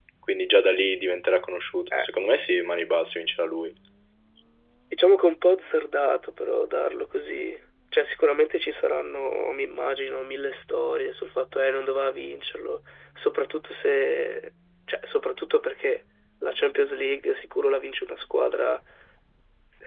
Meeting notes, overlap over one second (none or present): none